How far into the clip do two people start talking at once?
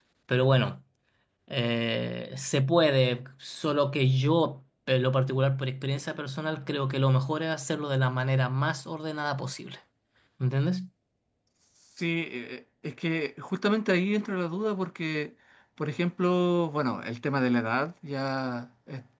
none

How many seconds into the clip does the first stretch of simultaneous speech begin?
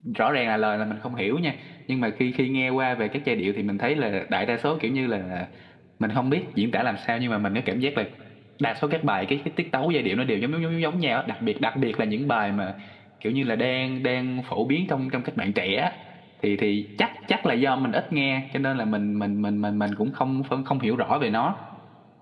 none

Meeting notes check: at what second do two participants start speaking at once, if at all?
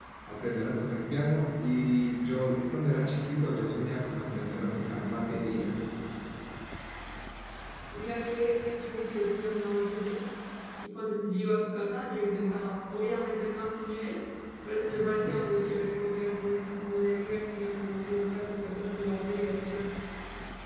none

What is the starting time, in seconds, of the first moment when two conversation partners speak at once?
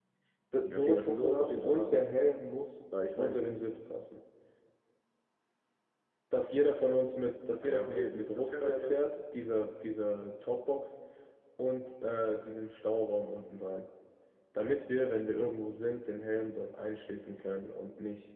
1 s

